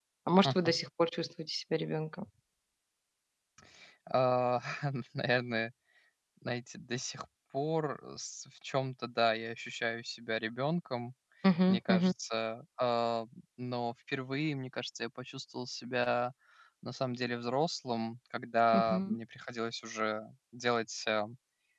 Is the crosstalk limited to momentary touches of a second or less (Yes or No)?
Yes